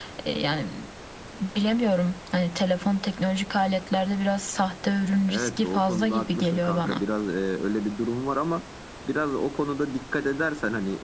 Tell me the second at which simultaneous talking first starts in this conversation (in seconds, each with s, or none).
5.2 s